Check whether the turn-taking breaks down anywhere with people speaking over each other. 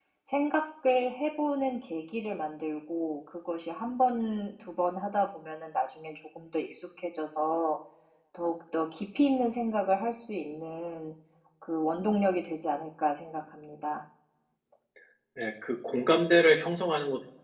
No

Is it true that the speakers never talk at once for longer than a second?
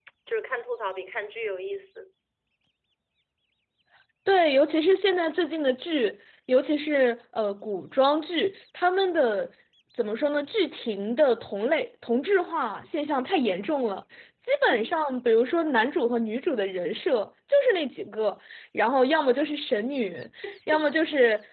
Yes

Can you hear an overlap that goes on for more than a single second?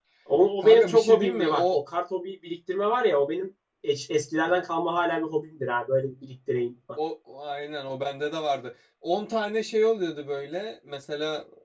Yes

